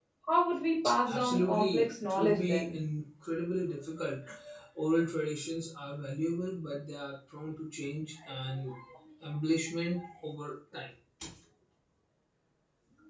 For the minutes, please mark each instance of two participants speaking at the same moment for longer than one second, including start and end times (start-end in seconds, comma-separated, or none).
1.1-2.8